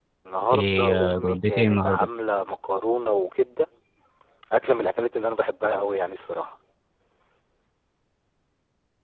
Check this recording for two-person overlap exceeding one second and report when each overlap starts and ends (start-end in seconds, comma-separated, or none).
0.5-2.1